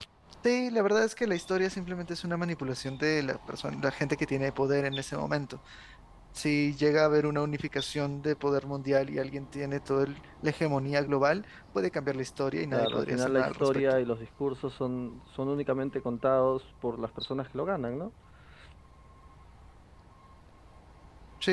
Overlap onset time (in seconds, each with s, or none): 12.7 s